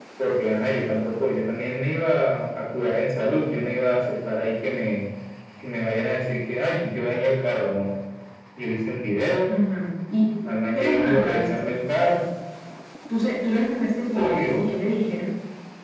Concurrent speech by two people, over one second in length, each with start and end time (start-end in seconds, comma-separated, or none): 10.4-11.7